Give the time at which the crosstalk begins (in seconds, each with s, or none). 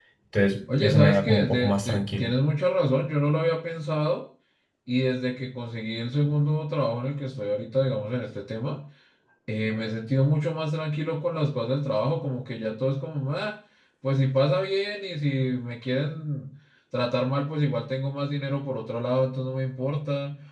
0.8 s